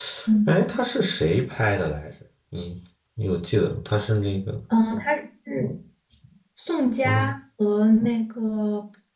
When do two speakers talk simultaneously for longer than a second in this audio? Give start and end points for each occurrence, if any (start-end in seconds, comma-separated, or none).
none